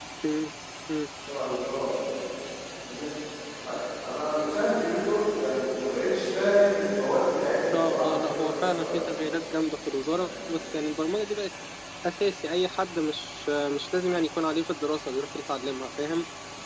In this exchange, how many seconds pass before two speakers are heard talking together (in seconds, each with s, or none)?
7.7 s